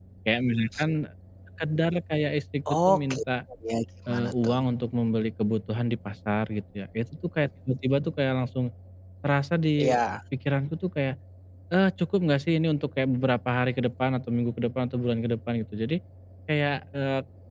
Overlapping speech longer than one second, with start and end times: none

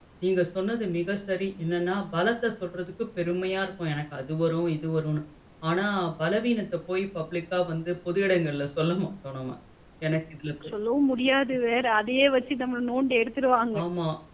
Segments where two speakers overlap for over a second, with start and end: none

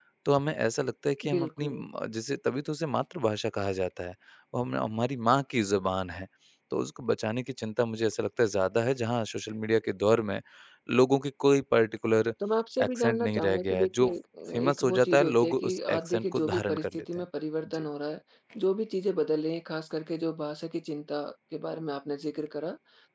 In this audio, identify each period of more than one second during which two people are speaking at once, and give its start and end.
12.8-14.1, 14.5-17.2

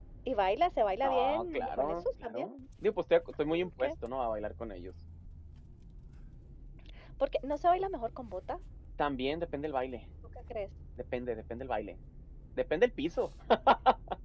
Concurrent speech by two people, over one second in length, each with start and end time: 1.0-2.5

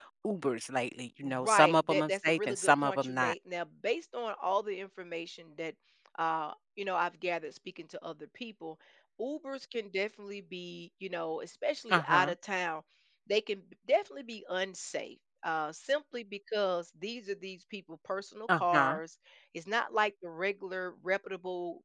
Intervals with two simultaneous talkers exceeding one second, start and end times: 1.2-3.3

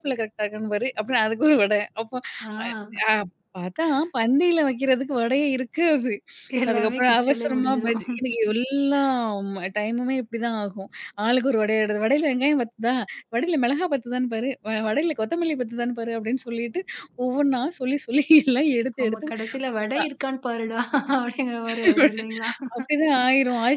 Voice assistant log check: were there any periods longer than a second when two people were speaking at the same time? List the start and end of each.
6.7-8.2

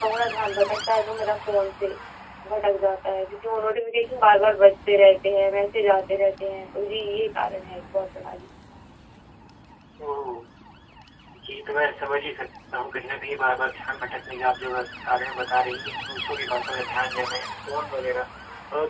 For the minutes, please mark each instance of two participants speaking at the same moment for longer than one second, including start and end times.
none

